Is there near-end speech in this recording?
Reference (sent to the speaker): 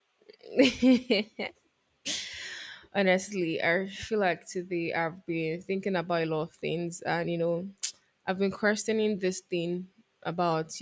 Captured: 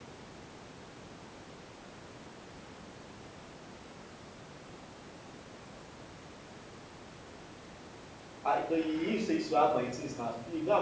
Yes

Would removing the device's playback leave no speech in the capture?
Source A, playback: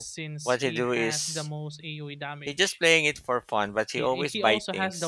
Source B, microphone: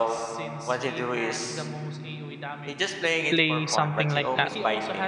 No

